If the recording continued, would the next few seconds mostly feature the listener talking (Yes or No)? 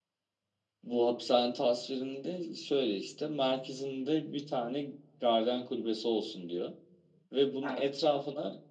No